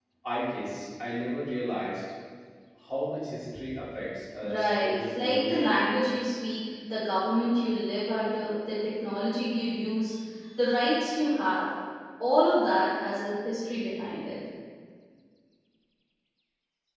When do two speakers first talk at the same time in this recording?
4.4 s

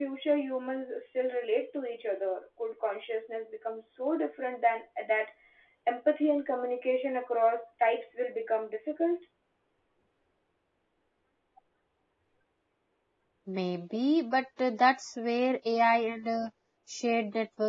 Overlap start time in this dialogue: none

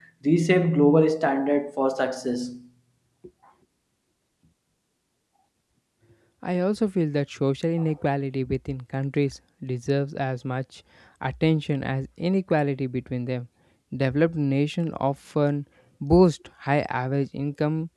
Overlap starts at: none

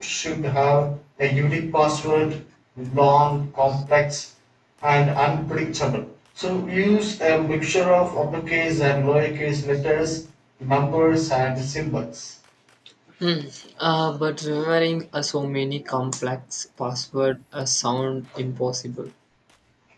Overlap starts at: none

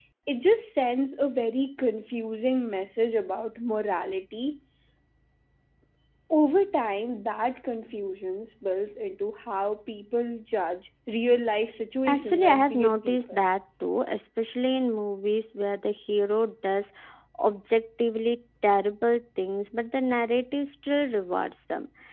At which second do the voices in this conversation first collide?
12.1 s

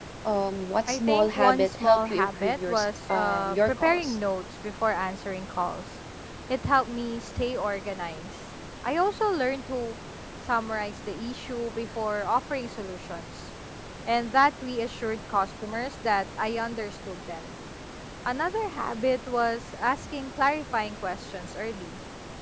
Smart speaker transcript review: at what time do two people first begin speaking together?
0.9 s

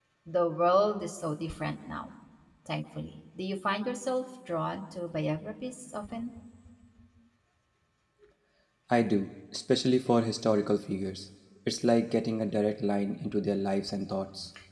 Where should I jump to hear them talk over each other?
none

